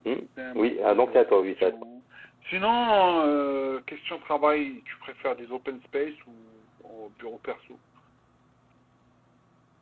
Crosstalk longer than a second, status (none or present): present